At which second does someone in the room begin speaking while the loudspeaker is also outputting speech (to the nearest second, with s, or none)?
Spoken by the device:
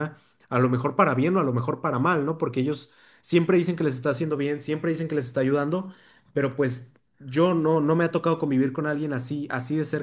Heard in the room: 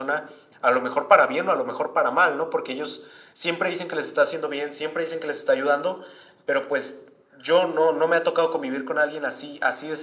none